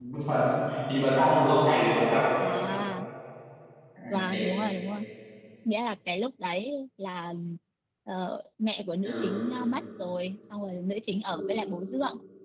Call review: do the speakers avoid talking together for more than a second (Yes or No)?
Yes